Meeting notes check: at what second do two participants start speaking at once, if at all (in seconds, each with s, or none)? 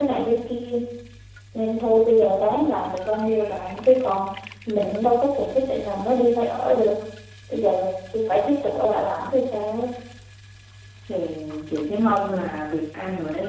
none